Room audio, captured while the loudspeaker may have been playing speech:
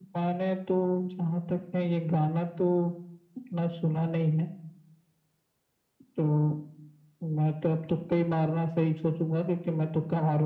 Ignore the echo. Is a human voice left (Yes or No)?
No